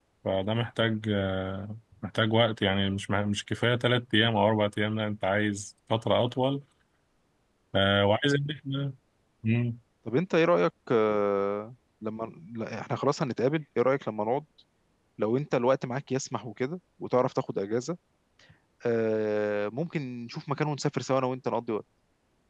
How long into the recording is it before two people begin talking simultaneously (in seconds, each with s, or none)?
none